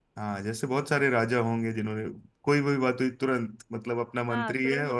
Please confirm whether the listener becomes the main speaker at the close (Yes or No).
Yes